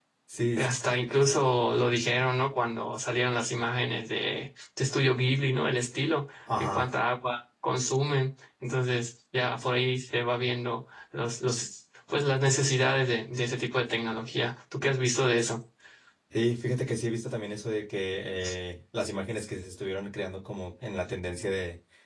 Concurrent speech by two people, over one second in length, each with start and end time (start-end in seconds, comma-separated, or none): none